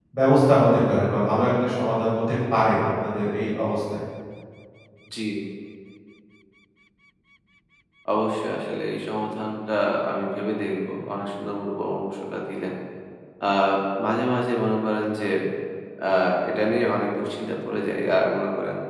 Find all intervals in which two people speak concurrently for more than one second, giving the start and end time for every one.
none

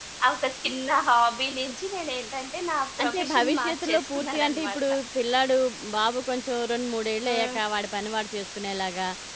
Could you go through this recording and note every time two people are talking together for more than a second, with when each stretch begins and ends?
3.0-4.8

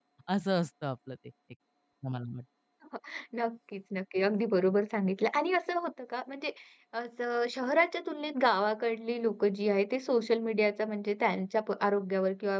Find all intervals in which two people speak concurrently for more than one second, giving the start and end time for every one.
none

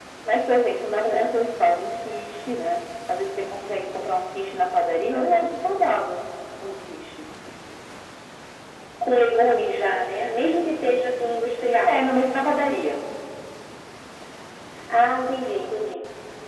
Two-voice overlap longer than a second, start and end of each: none

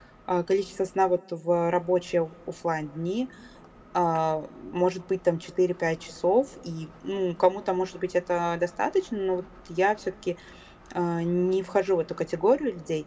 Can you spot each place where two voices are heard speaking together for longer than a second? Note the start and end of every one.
none

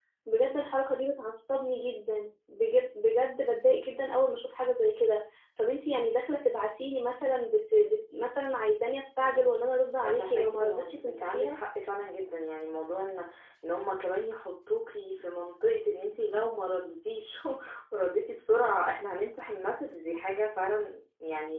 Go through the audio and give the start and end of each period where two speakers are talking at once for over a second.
10.0-11.6

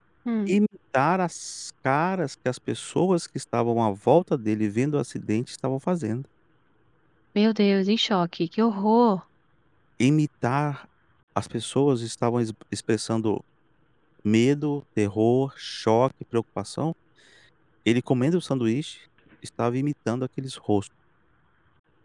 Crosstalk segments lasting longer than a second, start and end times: none

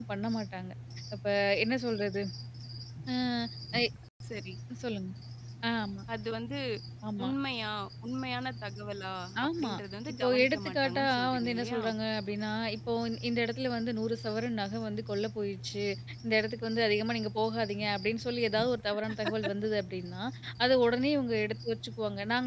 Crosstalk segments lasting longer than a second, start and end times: 10.2-11.8

